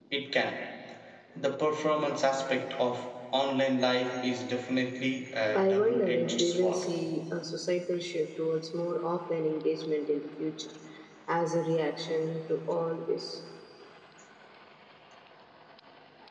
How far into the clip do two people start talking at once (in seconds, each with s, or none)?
5.5 s